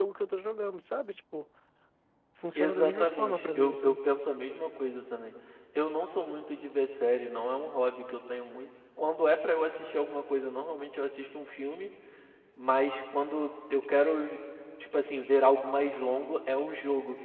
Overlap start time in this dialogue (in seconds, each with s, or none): 2.6 s